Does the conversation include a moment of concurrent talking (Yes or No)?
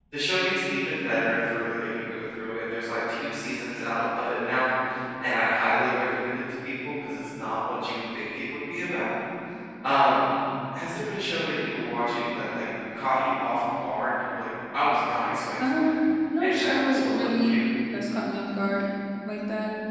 Yes